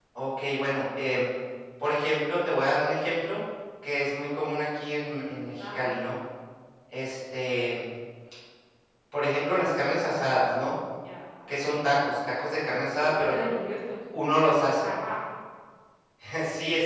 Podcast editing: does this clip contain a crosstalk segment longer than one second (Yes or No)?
No